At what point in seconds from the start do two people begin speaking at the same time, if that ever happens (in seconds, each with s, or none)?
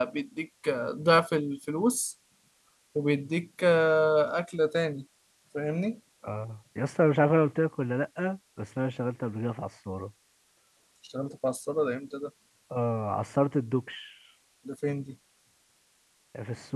none